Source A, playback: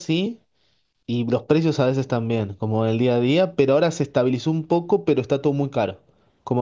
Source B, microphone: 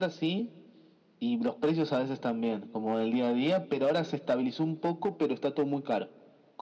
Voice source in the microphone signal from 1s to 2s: echo only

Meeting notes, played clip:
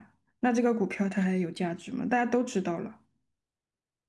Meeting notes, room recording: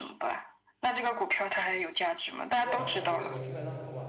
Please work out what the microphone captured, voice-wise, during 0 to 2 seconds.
echo only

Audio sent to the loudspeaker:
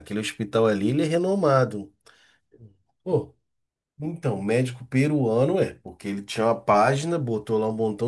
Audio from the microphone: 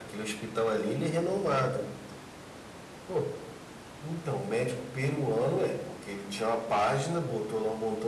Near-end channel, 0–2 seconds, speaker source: echo only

